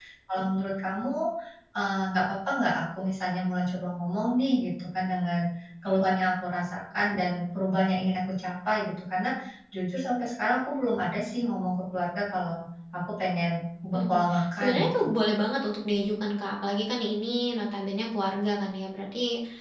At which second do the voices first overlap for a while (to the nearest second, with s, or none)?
14 s